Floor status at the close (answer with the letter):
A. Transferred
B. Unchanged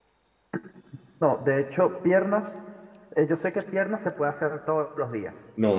A